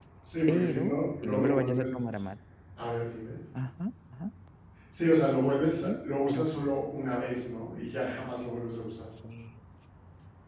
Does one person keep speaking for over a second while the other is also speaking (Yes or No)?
Yes